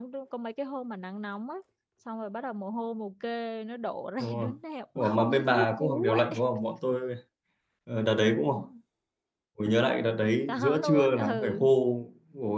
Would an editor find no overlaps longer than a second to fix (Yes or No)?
No